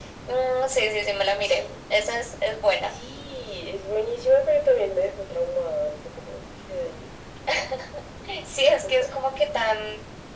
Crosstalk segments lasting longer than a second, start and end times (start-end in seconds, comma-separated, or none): none